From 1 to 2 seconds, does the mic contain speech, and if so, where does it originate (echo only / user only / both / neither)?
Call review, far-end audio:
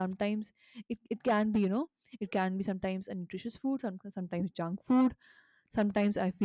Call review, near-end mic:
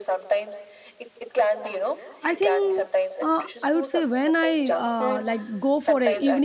echo only